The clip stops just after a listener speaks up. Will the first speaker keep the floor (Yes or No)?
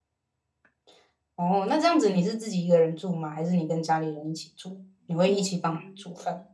No